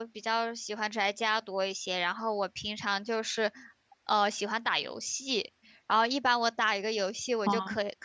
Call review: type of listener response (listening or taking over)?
listening